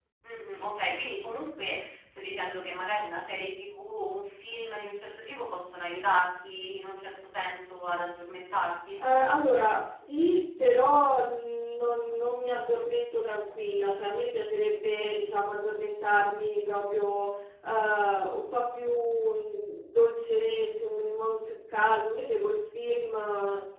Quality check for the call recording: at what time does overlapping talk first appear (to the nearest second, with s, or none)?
none